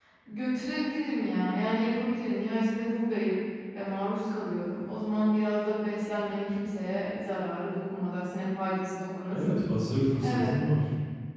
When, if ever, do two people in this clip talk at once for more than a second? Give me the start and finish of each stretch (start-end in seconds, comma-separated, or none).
none